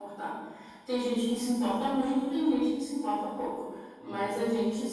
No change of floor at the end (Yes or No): Yes